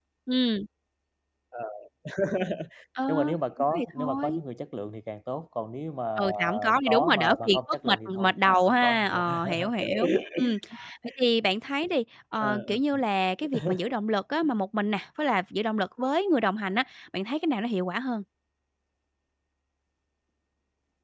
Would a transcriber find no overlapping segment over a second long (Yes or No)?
No